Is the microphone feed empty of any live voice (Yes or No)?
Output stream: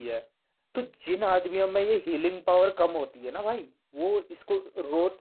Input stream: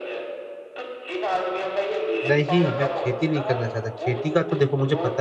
No